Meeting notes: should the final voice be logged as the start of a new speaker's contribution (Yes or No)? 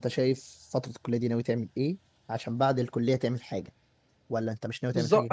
Yes